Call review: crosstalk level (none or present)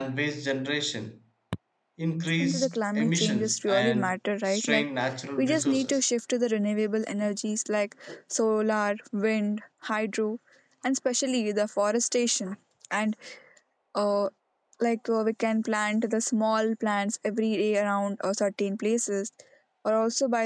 present